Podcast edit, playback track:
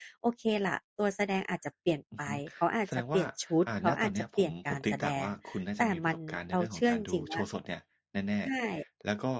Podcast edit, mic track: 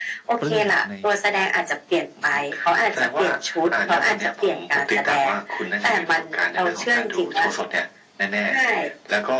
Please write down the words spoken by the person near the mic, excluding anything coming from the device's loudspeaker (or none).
ปลื้มใน